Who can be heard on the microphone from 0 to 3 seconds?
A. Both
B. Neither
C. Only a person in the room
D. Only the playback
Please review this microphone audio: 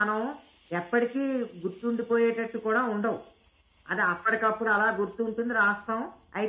D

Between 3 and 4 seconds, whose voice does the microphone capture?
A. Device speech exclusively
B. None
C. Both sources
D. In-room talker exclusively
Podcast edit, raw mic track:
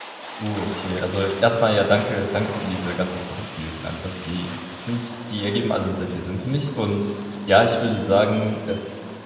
D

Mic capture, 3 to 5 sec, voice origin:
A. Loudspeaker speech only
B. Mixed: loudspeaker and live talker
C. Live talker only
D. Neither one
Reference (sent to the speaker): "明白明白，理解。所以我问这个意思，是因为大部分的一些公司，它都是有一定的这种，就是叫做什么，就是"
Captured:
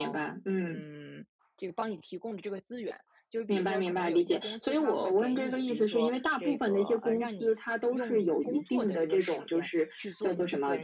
B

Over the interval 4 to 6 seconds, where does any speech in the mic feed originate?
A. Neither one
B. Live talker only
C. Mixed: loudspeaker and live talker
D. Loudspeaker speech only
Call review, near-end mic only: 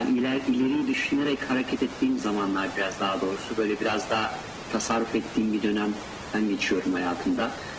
D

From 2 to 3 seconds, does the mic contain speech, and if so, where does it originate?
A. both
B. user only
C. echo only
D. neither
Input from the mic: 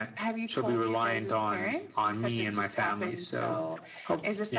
C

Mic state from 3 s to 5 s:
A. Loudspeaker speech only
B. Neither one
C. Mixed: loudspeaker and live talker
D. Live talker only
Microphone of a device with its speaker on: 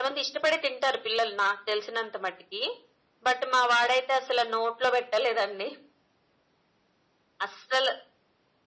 A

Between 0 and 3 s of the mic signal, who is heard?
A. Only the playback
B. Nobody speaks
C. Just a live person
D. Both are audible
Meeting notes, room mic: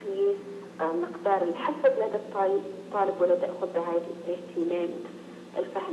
A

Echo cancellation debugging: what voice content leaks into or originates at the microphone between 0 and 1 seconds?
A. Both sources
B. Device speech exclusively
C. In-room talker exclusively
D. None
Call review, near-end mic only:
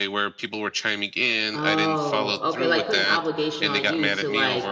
B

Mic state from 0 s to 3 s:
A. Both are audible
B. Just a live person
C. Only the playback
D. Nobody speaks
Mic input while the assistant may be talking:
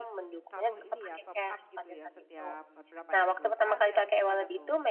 A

